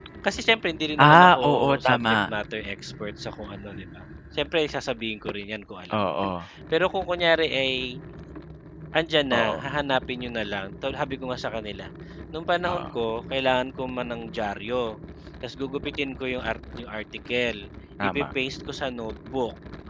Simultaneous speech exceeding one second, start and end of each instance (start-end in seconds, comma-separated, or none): 1.0-2.3